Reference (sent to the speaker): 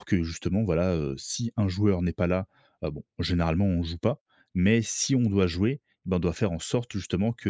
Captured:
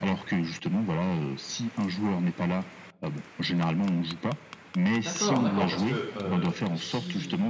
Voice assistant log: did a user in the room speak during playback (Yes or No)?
Yes